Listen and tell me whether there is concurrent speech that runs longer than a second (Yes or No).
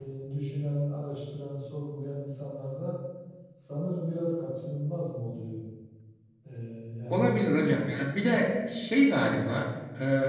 No